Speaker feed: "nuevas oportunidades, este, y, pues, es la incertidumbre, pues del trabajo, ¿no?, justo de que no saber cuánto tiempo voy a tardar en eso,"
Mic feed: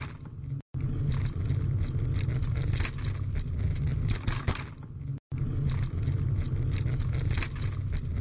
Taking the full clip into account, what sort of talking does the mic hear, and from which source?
neither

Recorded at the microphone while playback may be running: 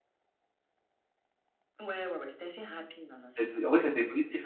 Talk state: both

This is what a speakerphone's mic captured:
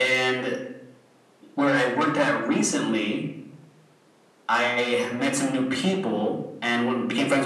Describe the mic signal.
echo only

